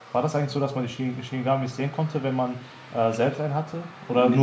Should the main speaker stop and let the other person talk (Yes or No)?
Yes